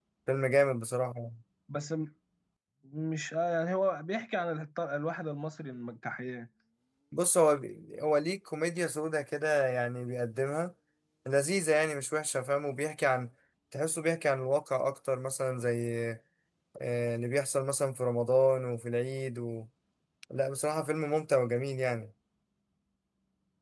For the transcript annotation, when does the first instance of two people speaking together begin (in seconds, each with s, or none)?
none